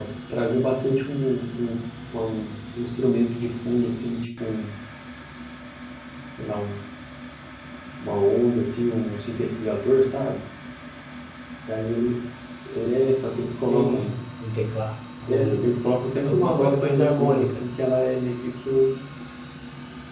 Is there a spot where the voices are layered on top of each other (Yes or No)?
Yes